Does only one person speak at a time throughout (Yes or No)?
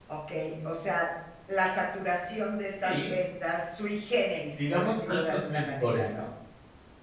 No